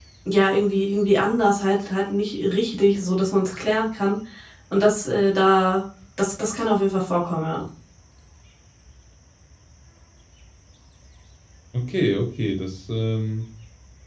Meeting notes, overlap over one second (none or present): none